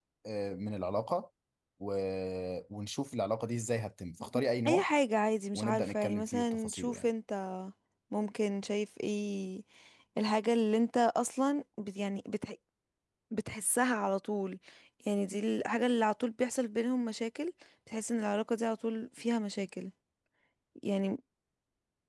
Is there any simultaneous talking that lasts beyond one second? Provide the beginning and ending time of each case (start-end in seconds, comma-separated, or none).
5.5-7.1